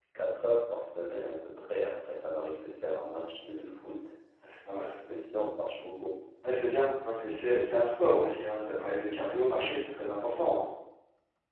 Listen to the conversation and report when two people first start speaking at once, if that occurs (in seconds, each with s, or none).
none